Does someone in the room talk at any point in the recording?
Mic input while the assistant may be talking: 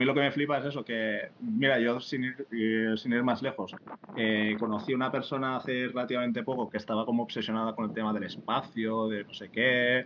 Yes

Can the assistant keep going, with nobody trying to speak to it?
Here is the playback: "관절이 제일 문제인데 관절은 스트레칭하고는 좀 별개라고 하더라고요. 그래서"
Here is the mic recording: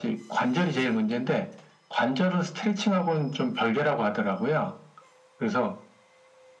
Yes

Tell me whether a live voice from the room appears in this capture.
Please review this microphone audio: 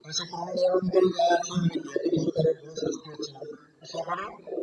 No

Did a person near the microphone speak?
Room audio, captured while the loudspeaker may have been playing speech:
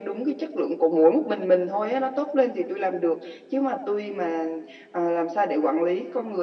No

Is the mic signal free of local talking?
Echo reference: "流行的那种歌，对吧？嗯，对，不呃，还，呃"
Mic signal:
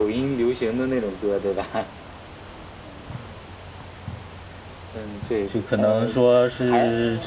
No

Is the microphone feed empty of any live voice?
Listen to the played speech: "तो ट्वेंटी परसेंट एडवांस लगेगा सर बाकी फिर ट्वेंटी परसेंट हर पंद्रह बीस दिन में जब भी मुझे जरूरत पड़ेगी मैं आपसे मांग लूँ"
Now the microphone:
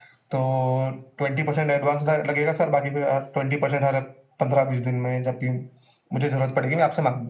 Yes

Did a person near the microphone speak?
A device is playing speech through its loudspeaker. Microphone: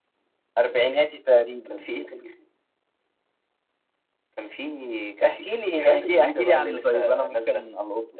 No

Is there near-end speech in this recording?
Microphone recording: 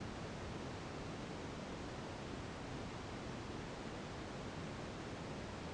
No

